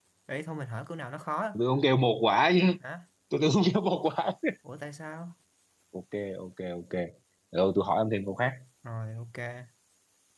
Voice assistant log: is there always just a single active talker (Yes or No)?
Yes